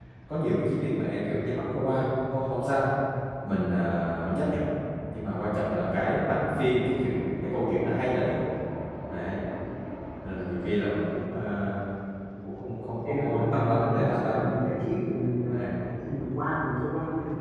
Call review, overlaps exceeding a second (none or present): present